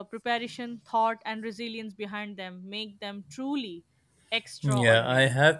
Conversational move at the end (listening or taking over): taking over